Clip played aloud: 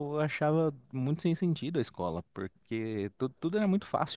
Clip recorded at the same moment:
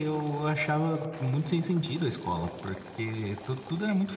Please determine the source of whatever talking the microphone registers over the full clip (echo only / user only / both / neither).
echo only